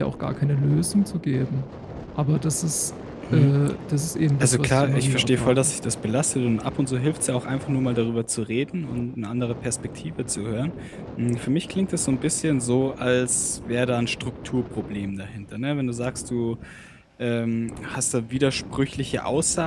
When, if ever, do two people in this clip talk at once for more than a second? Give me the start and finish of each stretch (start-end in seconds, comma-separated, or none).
4.4-5.7